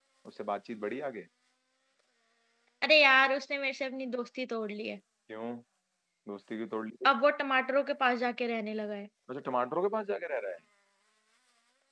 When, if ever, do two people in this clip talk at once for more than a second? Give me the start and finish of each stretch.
none

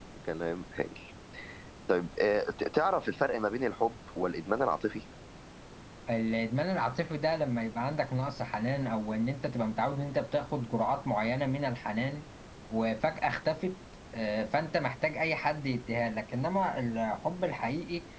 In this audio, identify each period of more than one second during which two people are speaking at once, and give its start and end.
none

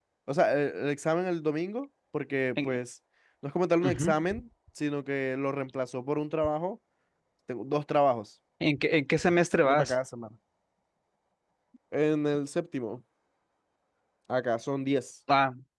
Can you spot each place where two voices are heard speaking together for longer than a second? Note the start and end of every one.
none

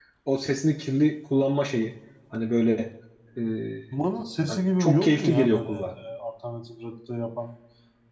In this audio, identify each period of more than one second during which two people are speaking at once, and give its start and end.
4.5-5.9

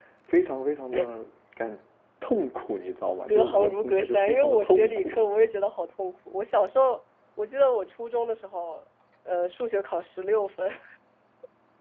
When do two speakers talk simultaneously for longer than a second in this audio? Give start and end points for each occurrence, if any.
3.3-5.2

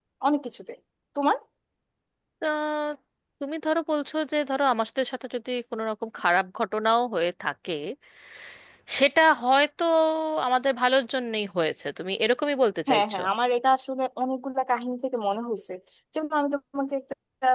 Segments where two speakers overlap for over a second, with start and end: none

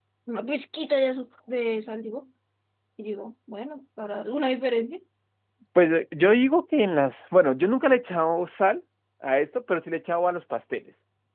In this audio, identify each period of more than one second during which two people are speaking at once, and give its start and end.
none

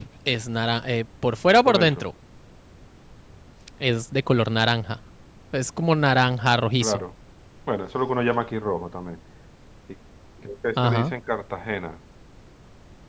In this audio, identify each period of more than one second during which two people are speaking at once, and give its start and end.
none

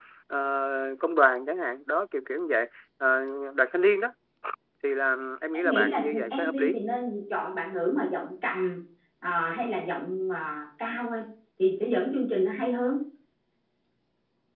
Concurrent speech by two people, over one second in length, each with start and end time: 5.5-6.8

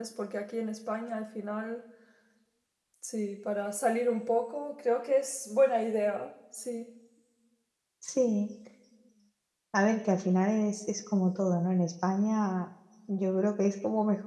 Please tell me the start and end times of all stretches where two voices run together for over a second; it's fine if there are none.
none

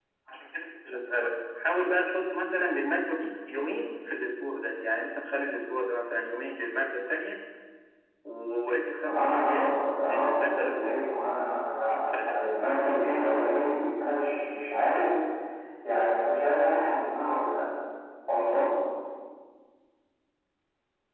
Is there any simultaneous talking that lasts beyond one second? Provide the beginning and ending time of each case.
9.1-10.9

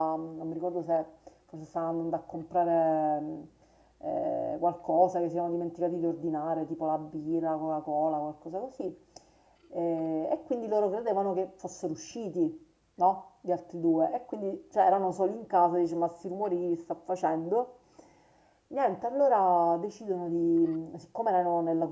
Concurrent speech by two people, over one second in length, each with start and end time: none

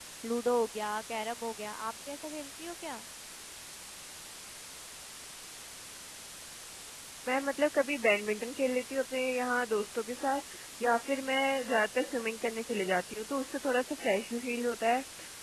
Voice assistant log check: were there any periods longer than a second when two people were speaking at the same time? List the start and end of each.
none

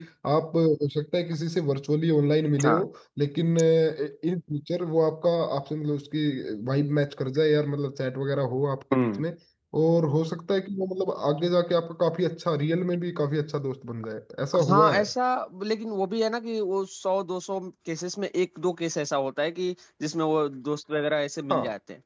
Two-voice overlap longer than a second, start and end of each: none

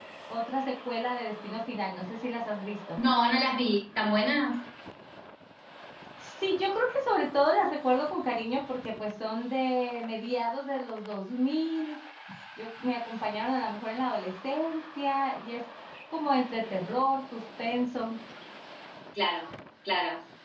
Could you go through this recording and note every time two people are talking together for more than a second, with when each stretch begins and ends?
none

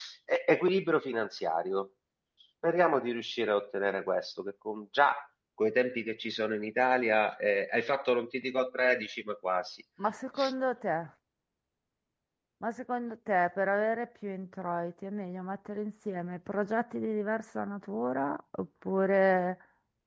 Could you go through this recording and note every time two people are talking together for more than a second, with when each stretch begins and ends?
none

